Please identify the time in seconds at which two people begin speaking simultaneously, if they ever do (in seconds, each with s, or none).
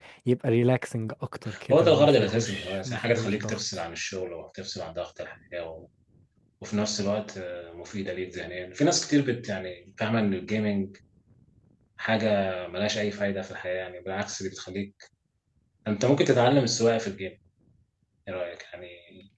1.5 s